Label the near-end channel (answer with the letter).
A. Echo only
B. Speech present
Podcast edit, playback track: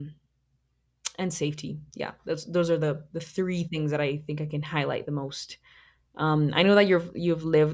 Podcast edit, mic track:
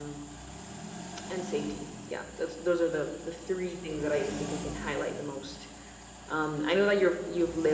A